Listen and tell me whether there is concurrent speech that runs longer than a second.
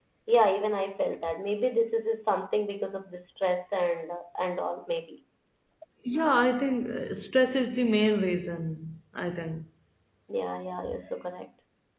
No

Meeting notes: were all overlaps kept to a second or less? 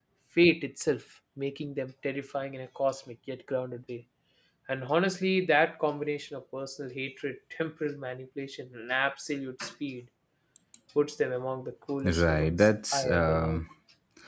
No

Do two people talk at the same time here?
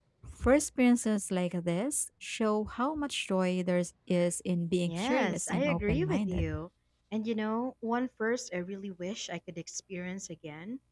Yes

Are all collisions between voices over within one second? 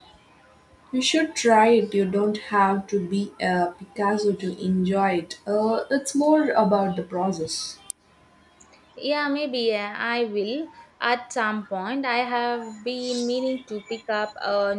Yes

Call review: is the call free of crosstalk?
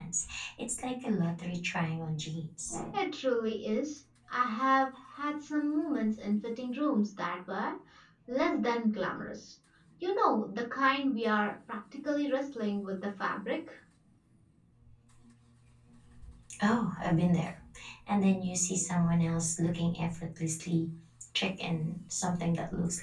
Yes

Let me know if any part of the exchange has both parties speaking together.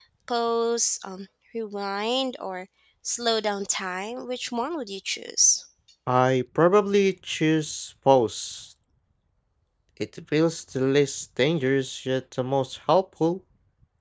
No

